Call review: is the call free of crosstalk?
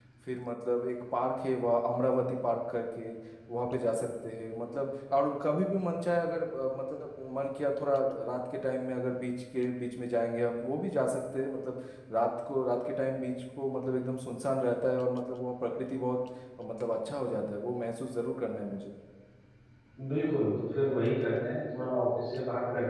Yes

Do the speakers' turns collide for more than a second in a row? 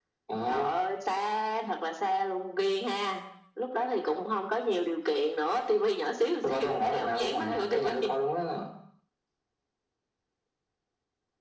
Yes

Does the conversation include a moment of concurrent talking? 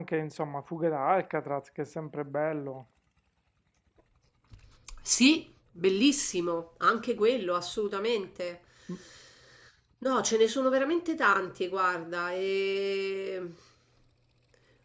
No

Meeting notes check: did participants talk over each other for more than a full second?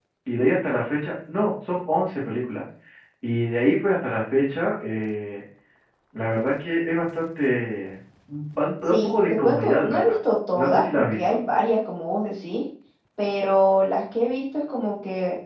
Yes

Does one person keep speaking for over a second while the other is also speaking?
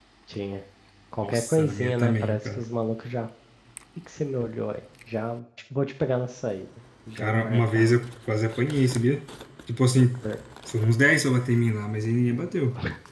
Yes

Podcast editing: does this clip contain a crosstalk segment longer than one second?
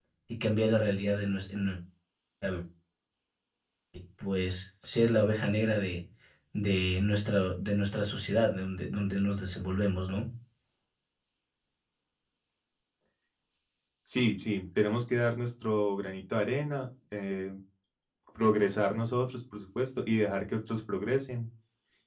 No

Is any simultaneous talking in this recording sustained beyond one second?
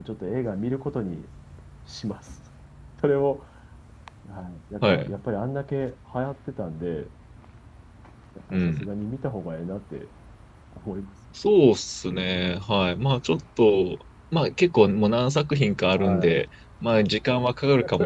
No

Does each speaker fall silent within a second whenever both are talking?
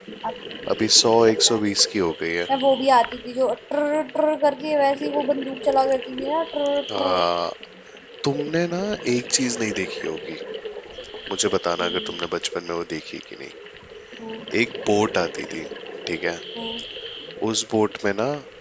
Yes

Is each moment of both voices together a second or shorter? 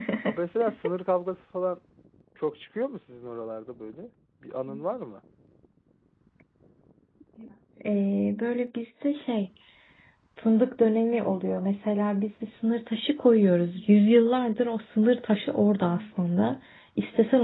Yes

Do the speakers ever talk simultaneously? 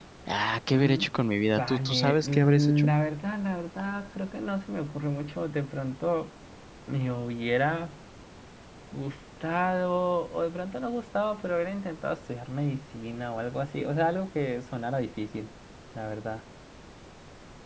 Yes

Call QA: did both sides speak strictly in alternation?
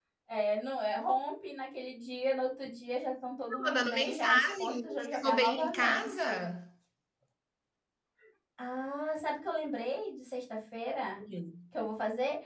No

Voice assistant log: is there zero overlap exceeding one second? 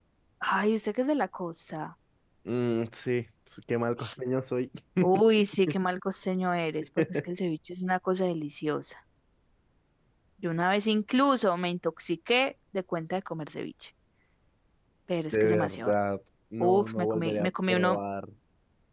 No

